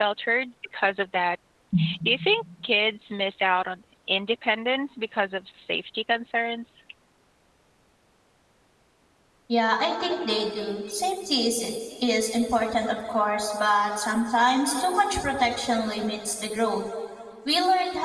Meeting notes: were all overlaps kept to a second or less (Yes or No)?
Yes